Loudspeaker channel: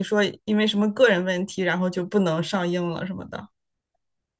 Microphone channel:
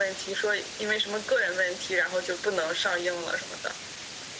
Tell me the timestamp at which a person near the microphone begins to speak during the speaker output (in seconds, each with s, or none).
none